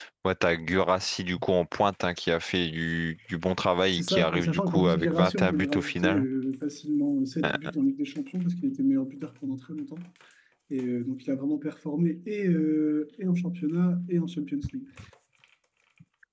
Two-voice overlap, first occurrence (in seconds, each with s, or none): 3.9 s